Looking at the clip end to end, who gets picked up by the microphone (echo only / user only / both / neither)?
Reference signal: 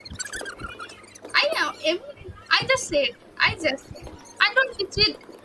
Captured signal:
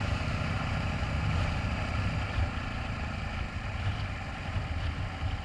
neither